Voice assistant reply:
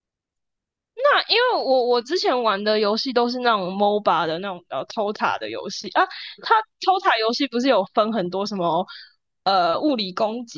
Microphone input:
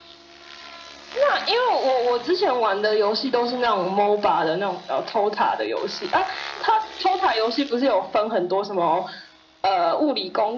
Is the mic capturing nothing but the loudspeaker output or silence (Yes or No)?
Yes